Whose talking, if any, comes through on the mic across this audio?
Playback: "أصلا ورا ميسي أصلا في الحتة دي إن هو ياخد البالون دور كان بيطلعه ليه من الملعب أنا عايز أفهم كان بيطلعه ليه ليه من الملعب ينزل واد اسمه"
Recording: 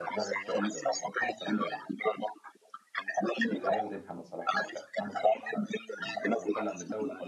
both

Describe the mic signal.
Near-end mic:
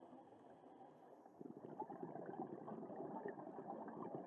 neither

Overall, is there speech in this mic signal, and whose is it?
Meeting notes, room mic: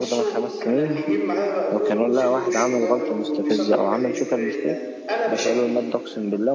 both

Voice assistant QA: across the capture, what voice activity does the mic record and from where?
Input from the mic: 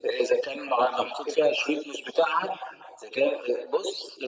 echo only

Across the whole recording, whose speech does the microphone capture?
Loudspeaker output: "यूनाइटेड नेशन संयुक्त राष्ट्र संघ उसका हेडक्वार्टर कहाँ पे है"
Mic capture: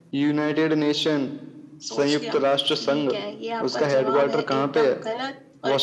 both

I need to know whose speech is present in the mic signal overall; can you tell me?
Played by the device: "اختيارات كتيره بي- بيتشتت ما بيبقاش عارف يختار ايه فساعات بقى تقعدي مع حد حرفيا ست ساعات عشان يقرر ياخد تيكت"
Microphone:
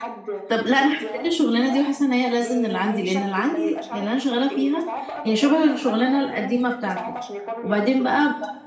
both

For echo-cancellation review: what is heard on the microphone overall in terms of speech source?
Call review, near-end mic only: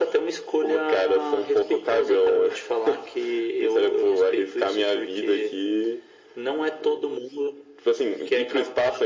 echo only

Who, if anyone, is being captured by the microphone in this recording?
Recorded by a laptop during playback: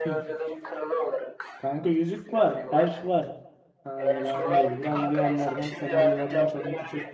both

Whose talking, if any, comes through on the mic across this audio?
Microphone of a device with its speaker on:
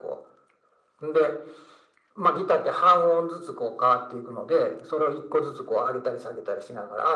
echo only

